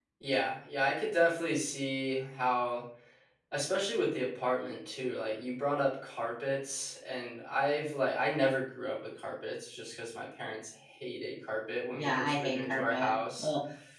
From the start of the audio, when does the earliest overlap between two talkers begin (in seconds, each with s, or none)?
11.9 s